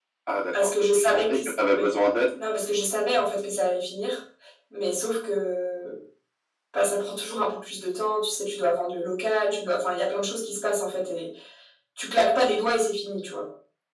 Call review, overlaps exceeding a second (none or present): present